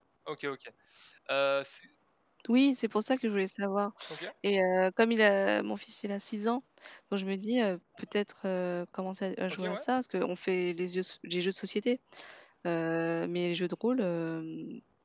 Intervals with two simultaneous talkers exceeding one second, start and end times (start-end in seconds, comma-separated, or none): none